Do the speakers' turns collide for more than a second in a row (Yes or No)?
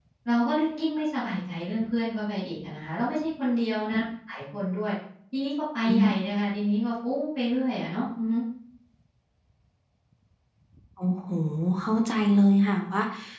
No